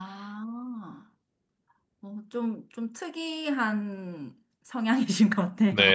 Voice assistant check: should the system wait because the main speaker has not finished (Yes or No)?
No